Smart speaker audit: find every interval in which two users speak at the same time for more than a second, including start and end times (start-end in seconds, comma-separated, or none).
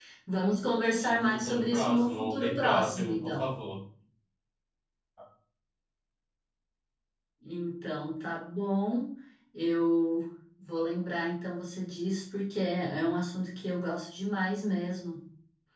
1.0-3.5